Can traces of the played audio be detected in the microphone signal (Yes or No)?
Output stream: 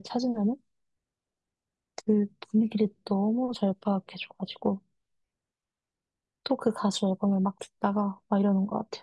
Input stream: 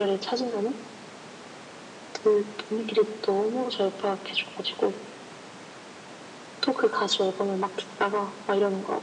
Yes